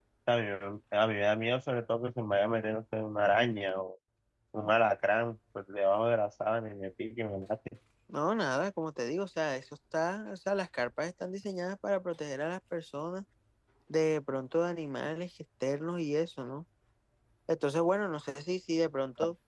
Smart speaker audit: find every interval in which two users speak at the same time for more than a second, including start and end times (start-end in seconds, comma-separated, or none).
none